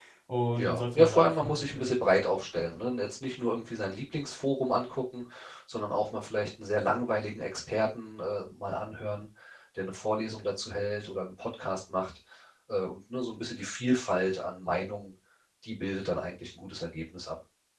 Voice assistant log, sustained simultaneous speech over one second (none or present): present